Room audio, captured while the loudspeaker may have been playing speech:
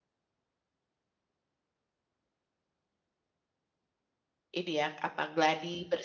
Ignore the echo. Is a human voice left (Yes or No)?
Yes